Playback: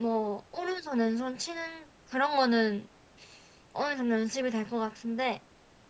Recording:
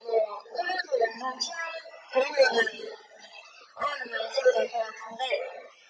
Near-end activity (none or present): none